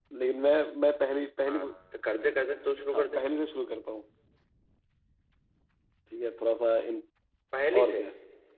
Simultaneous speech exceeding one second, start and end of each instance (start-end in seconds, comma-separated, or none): none